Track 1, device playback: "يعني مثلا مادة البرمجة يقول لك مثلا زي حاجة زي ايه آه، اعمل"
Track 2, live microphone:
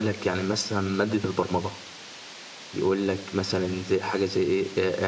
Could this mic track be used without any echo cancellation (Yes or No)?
No